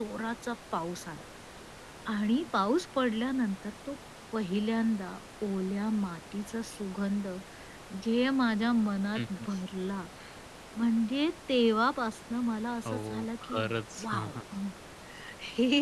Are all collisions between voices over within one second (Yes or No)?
Yes